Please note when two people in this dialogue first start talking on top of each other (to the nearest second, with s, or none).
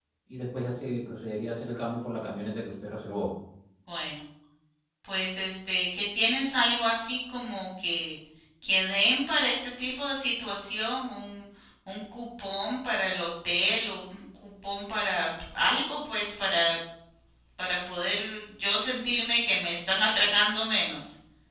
none